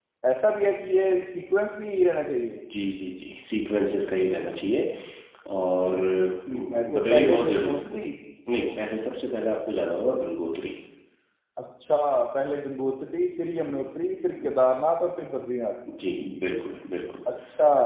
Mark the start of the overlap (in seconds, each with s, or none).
6.5 s